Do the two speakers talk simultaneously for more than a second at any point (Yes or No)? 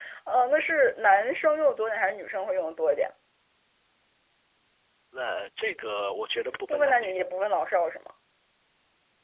No